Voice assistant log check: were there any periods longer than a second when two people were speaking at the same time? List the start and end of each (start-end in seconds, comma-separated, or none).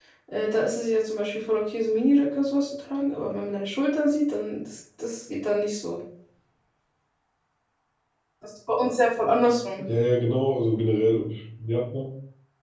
none